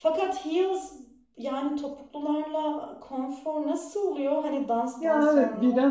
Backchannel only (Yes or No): No